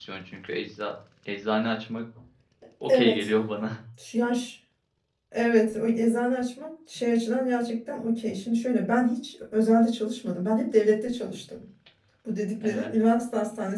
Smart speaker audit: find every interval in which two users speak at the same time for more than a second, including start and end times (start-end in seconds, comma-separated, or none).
none